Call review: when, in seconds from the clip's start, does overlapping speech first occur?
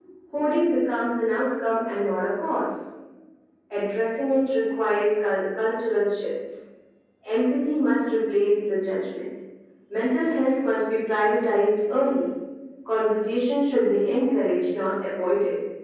none

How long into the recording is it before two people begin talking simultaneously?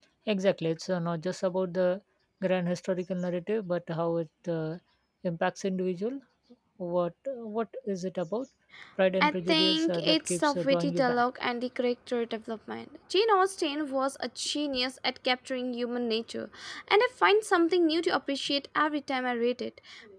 9.2 s

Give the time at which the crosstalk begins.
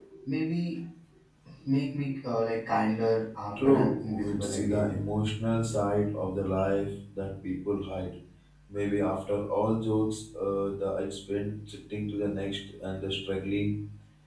3.6 s

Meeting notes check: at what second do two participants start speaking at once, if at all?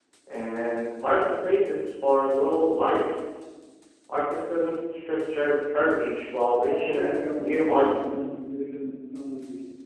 6.7 s

